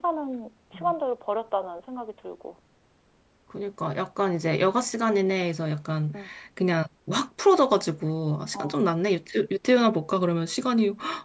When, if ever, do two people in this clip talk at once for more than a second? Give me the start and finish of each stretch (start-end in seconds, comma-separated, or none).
none